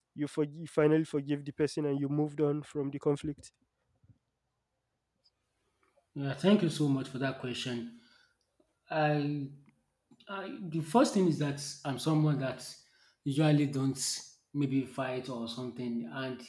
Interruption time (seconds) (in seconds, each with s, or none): none